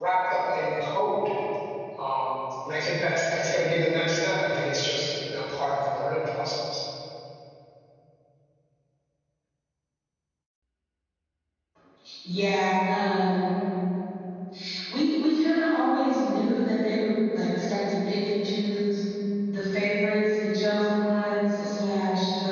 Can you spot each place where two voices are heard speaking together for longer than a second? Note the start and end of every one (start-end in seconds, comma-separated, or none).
none